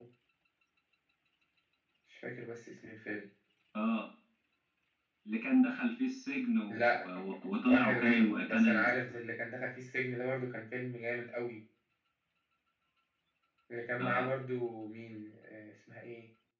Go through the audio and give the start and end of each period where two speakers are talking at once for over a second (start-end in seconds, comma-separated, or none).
7.7-8.9